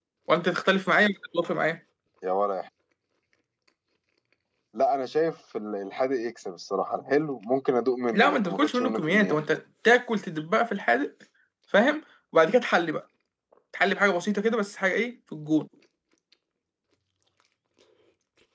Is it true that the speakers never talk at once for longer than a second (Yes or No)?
No